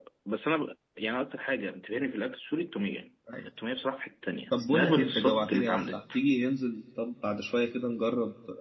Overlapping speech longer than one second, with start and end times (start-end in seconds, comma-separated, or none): 4.5-6.0